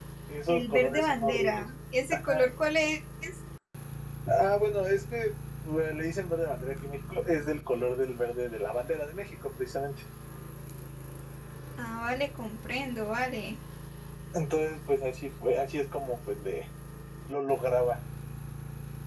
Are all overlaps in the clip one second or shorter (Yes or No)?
No